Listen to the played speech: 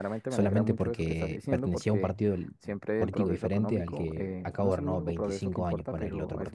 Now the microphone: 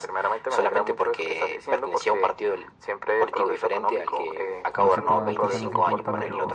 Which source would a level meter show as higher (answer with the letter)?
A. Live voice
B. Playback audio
B